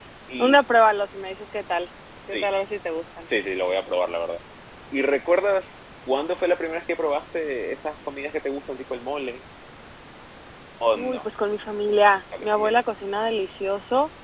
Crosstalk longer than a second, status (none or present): none